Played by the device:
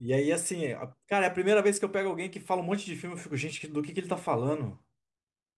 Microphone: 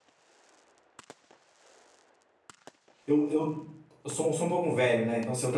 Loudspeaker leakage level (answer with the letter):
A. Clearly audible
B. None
B